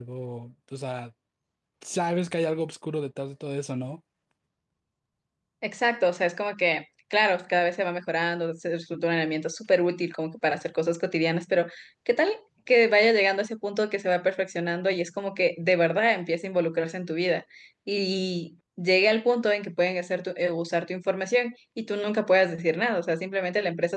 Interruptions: none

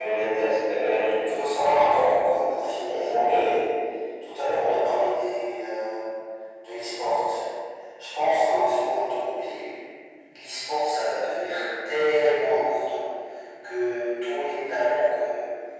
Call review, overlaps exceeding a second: none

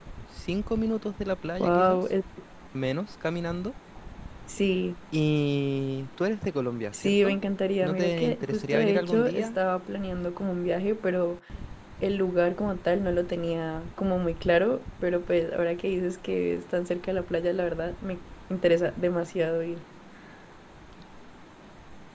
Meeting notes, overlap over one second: present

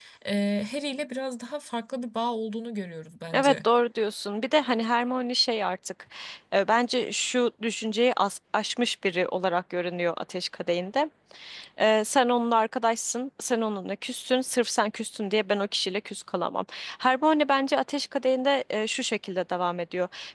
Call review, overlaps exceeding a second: none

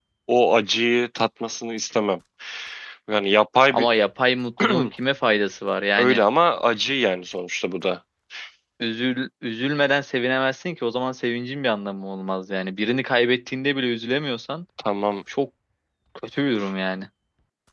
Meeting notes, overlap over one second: none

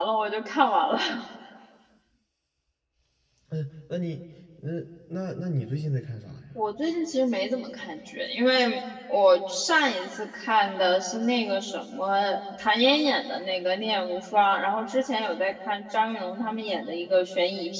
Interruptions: none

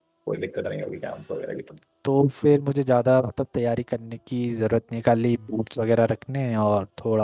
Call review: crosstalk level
none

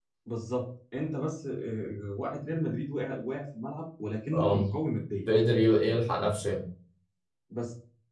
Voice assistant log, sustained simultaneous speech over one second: none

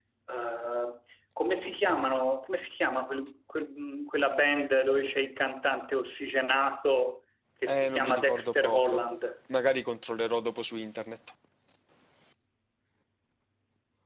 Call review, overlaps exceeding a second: present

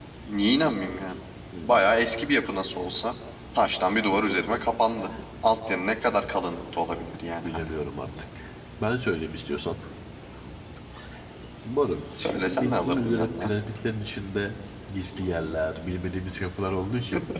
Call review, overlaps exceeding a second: present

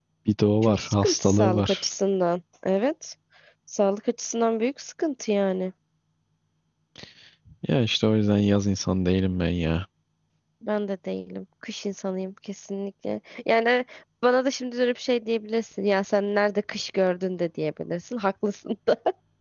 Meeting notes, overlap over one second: present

